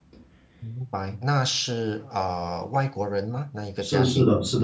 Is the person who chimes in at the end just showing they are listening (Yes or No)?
No